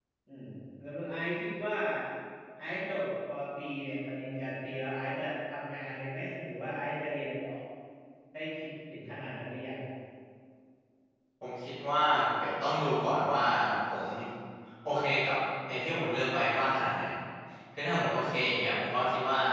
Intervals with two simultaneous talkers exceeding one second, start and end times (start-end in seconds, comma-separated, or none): none